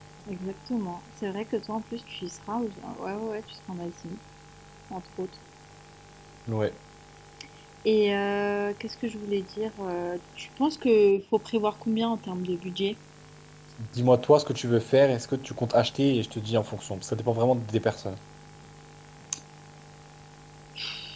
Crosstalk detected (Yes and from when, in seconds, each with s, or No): No